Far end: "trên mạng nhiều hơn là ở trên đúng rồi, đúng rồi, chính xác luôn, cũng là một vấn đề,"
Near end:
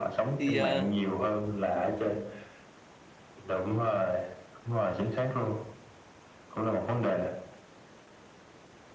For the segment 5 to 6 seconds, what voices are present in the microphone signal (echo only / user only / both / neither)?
echo only